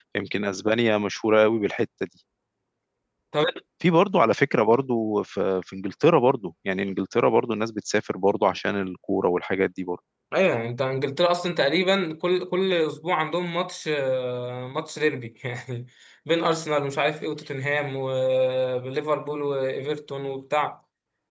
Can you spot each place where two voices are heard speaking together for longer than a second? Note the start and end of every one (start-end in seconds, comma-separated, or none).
none